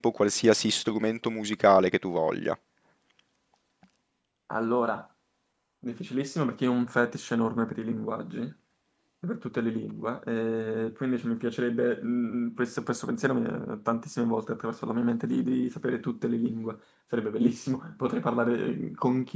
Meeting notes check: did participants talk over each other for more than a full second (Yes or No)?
No